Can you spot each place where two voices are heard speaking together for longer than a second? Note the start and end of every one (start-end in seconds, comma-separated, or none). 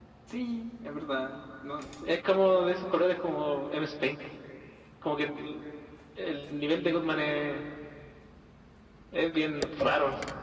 none